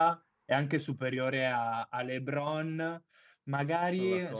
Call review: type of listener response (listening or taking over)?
listening